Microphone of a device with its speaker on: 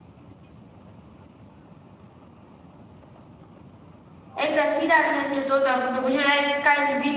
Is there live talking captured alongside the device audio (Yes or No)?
Yes